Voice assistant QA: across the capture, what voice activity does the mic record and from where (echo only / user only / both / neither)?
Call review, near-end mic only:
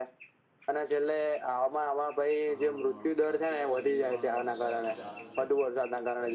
both